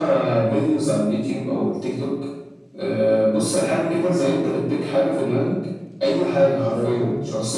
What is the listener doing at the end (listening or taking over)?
listening